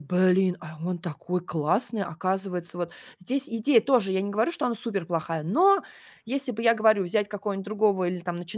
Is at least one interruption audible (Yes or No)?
No